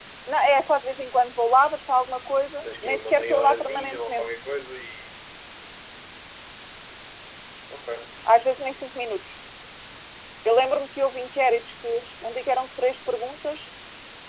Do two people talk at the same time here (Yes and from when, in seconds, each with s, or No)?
Yes, from 2.6 s